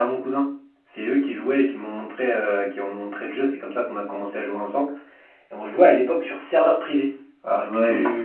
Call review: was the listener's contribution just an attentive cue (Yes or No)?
No